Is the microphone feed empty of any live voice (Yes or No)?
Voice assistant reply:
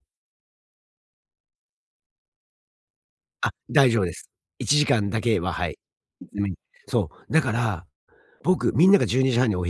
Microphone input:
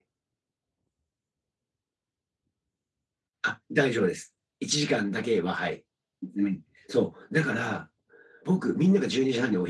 Yes